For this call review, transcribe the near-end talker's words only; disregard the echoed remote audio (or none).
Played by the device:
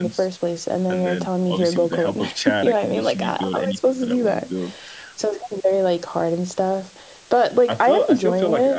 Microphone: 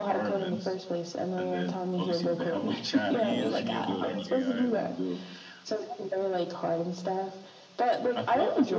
Um, do you use any other like AI um